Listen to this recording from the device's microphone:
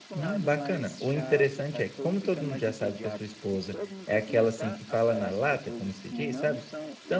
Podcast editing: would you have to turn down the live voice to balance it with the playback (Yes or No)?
Yes